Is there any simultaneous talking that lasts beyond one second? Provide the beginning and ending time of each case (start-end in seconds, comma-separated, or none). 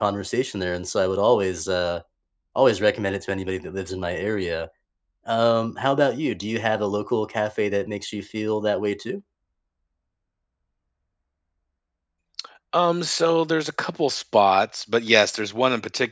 none